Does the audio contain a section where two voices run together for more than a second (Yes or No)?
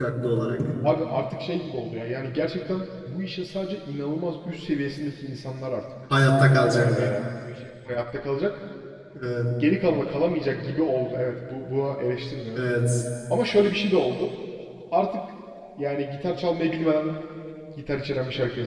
No